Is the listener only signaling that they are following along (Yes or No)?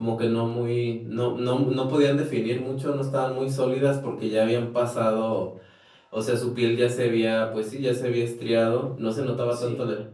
Yes